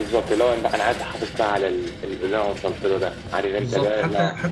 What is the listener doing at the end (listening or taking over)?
taking over